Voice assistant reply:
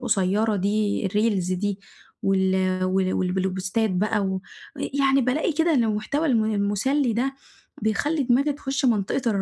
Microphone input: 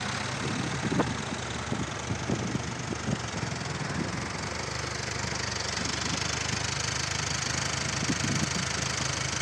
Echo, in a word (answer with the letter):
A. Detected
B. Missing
B